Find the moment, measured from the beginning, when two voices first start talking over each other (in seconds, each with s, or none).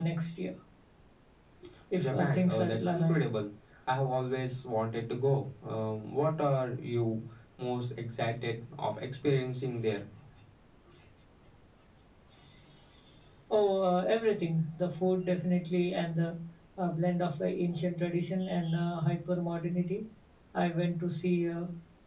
2.0 s